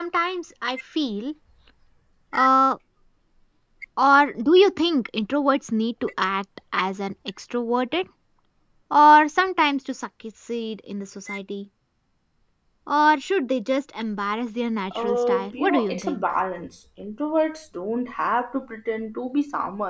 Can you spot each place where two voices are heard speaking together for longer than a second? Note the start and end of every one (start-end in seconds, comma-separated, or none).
14.9-16.3